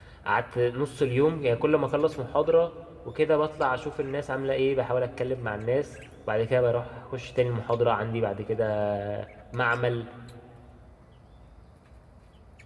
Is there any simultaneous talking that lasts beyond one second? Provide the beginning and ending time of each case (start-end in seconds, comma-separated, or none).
none